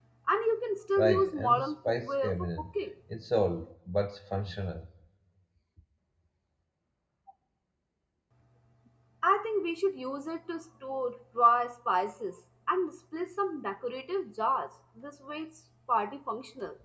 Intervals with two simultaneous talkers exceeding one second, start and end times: 1.0-2.7

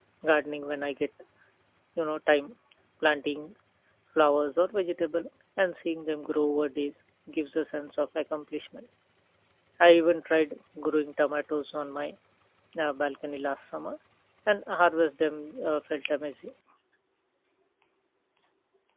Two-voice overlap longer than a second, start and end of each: none

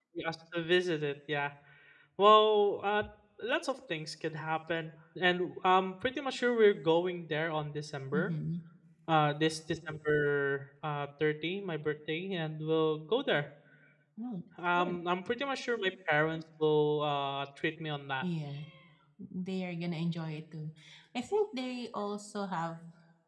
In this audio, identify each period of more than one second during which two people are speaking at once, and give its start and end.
none

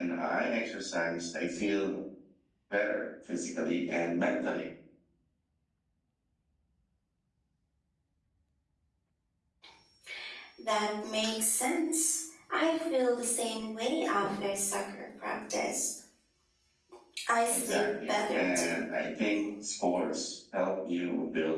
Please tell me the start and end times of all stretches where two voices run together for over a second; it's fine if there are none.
17.5-18.7

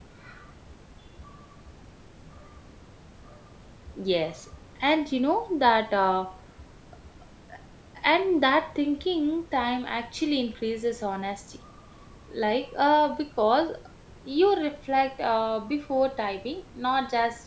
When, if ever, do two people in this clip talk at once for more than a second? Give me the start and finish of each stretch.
none

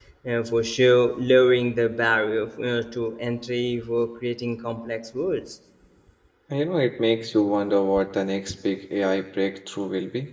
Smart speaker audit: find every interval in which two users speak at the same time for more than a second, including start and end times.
none

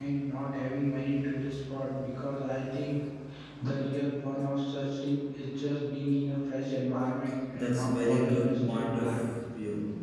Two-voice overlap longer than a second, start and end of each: 7.5-9.1

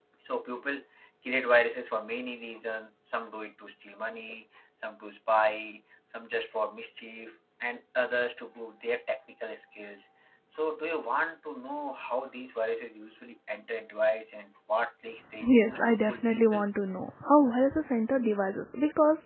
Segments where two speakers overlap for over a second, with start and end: 15.4-16.6

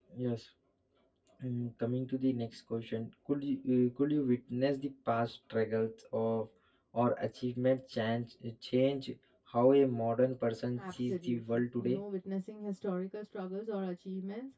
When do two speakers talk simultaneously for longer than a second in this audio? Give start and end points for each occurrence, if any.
10.8-12.0

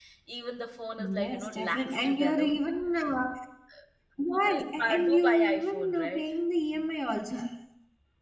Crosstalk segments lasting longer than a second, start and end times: 1.1-2.5, 4.3-6.2

